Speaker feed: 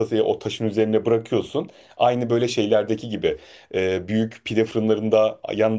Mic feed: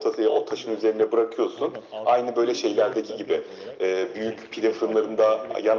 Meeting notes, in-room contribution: present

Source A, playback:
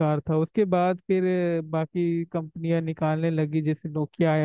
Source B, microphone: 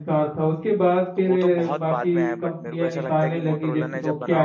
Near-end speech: present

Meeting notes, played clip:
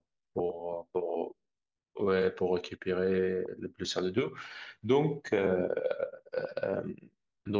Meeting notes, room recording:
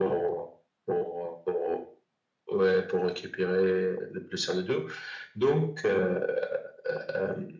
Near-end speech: none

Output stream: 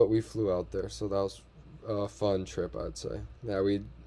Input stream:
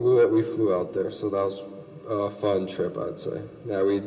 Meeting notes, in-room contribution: none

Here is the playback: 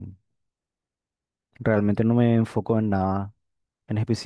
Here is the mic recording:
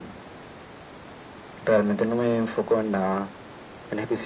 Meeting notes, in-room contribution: none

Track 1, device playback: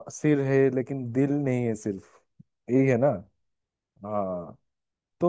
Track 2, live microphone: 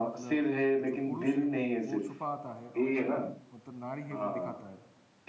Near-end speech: present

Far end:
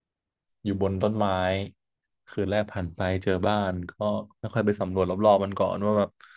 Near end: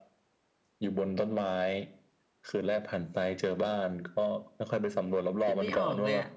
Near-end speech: present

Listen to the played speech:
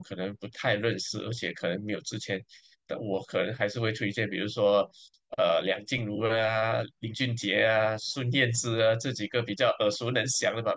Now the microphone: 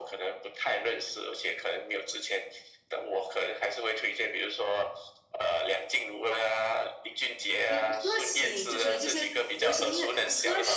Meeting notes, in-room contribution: present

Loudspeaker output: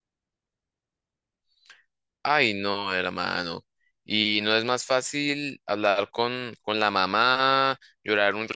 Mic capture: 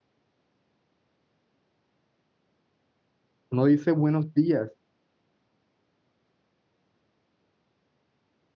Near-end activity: present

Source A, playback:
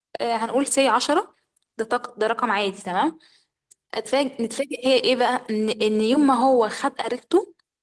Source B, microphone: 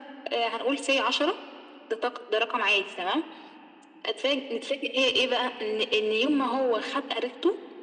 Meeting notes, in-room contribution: none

